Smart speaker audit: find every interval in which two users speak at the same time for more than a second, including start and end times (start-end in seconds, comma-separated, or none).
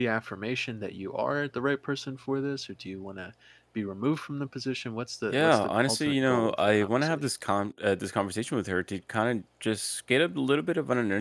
5.3-7.3